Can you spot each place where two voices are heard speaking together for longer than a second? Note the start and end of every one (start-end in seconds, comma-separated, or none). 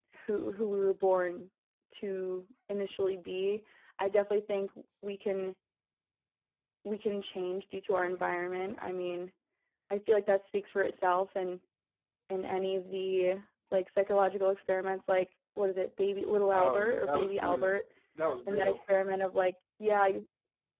16.5-17.8